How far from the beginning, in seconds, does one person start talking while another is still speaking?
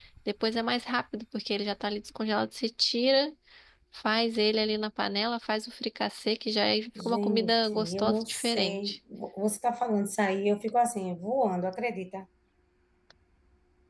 7.0 s

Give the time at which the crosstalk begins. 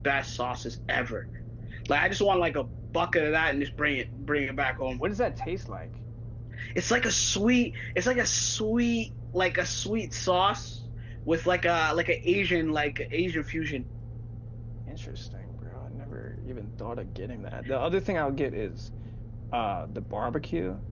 none

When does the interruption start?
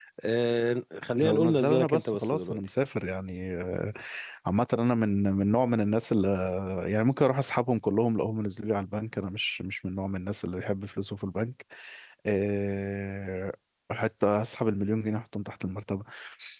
1.2 s

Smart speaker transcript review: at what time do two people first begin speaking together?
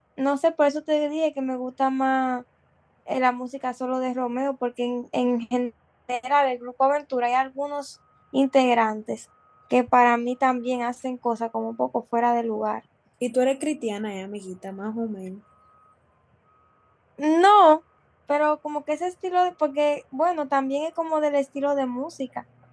none

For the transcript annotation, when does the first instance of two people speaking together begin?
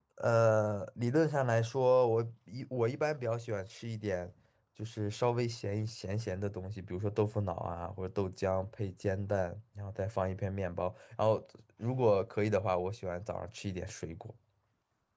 none

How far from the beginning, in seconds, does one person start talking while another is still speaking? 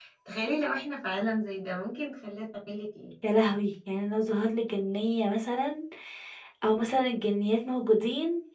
none

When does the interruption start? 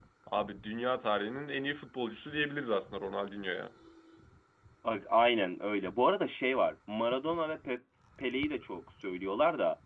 none

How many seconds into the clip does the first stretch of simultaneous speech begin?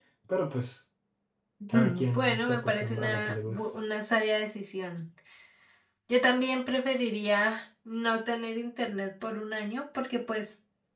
1.7 s

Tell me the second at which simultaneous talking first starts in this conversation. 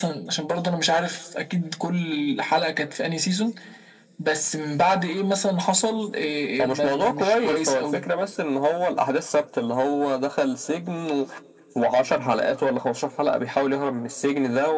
6.6 s

